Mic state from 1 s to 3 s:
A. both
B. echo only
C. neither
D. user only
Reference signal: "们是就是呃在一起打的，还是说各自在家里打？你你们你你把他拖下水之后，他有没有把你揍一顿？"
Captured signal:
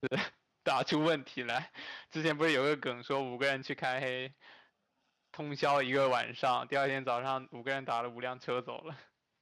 D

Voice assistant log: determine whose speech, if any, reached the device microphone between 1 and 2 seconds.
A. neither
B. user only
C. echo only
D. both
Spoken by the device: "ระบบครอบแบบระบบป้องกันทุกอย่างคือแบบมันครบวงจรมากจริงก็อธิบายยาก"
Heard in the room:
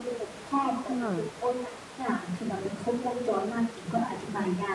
D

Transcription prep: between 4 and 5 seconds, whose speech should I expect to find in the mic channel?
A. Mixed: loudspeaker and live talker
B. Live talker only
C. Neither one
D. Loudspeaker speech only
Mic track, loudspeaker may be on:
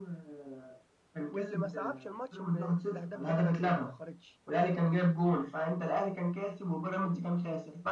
A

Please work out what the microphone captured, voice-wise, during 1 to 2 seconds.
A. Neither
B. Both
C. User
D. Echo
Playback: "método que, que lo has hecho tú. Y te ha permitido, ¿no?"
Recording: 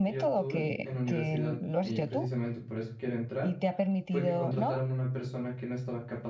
B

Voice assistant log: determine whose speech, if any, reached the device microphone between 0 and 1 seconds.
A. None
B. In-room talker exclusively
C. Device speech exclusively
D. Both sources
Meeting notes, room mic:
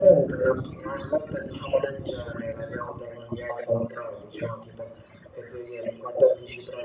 C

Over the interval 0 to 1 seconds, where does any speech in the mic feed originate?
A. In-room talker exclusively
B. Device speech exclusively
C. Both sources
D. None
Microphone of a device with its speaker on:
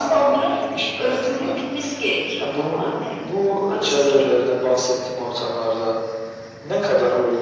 B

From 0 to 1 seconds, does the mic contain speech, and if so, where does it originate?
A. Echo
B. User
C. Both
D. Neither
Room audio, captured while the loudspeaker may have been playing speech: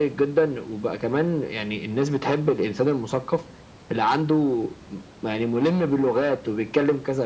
A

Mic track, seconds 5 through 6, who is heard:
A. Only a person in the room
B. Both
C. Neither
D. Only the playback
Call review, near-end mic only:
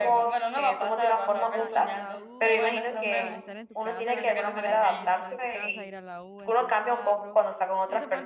B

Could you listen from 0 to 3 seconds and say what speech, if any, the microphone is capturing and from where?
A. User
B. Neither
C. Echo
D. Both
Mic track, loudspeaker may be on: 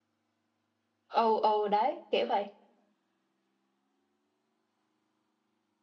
A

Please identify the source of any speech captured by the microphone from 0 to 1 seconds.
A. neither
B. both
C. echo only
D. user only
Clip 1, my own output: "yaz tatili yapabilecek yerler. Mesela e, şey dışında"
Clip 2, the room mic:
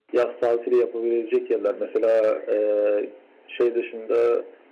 C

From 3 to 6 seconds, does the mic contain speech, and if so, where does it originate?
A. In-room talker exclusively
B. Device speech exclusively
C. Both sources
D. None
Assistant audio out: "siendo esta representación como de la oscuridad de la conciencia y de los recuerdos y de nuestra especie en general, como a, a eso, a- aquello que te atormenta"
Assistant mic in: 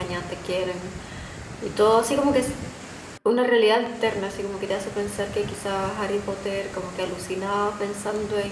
A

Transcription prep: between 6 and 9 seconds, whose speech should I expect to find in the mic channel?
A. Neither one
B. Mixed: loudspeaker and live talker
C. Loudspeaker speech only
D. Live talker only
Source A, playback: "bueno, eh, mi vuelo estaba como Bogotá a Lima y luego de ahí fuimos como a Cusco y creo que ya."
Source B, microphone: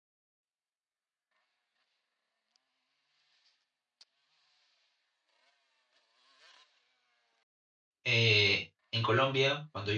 D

